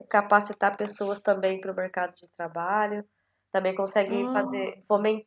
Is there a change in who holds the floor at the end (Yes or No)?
No